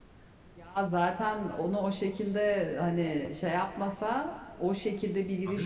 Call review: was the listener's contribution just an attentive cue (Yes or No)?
Yes